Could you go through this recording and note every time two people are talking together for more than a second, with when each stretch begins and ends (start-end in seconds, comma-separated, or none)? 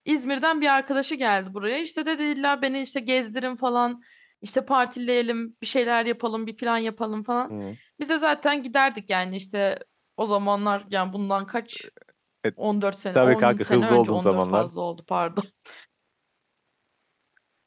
13.2-14.7